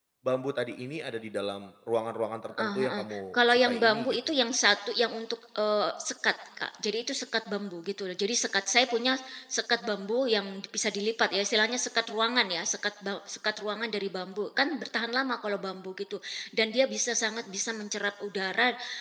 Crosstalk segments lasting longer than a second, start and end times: 2.5-4.2

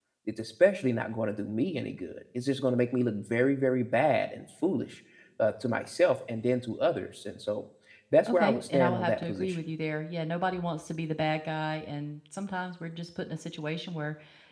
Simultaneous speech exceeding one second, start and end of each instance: 8.3-9.6

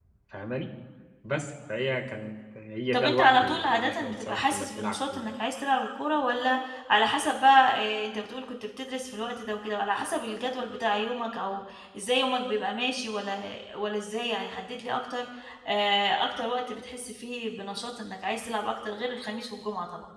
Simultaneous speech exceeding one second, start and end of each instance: 2.9-5.3

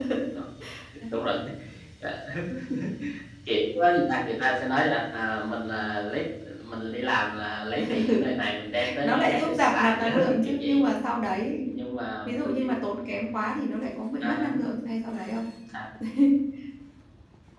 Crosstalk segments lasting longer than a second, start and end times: 9.0-10.8

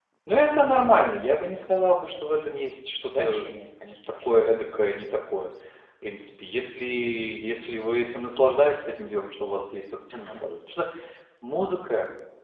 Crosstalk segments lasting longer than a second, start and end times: none

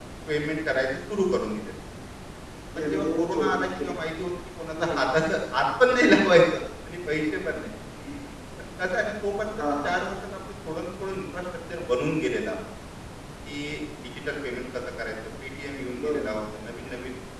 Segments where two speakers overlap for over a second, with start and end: 2.8-4.0

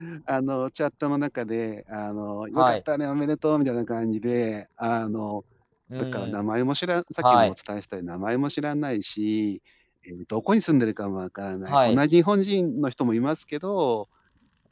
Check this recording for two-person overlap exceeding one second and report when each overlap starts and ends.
none

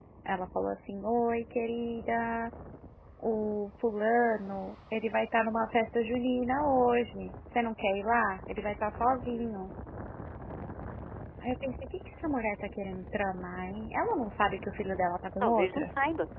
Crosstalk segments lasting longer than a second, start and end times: none

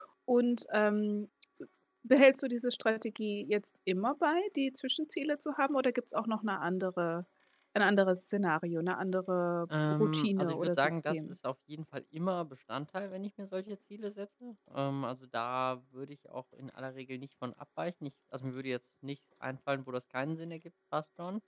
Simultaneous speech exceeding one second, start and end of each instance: 9.7-11.2

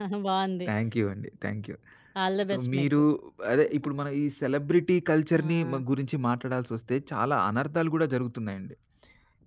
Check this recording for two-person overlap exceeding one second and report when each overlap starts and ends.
none

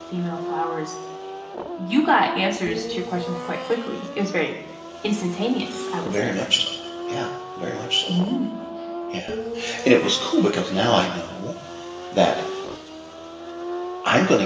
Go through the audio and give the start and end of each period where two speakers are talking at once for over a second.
none

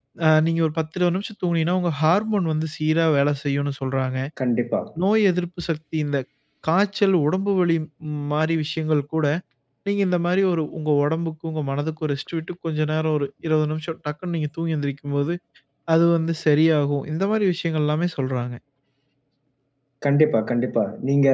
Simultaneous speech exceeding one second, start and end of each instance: none

